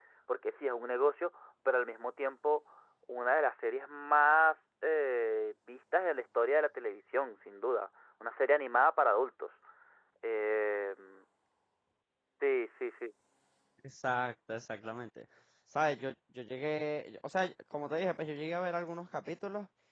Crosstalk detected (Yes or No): No